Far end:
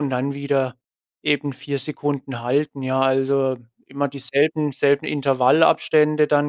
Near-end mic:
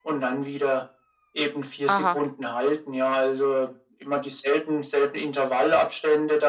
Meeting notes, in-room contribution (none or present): present